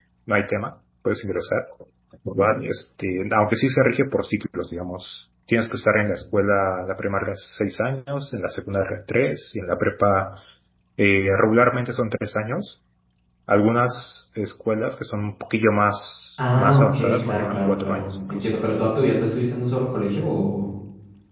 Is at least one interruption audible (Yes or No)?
Yes